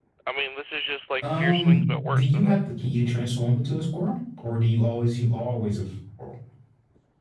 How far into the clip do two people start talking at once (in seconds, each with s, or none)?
1.2 s